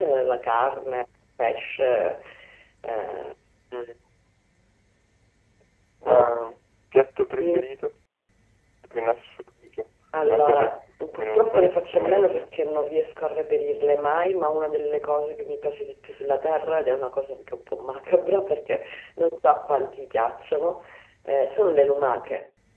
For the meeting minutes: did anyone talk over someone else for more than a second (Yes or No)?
Yes